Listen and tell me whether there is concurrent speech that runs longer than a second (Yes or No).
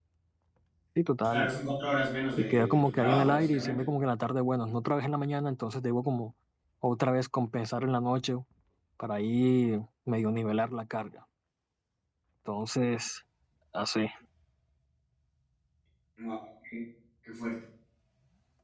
Yes